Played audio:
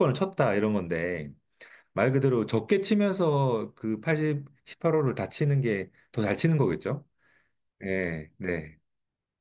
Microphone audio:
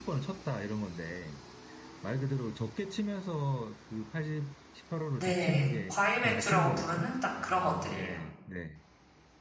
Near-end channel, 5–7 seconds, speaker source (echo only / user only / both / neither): both